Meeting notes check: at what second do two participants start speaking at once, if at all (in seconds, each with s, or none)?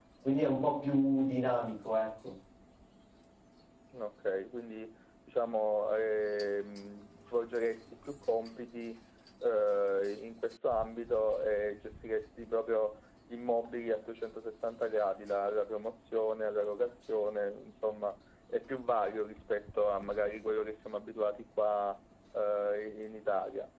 none